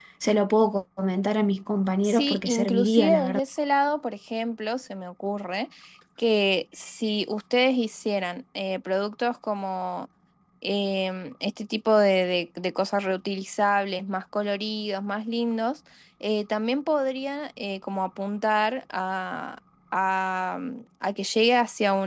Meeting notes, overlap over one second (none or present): present